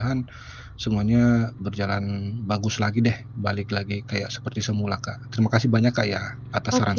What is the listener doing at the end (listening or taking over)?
taking over